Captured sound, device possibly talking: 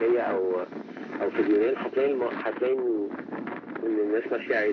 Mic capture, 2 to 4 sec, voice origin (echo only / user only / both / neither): echo only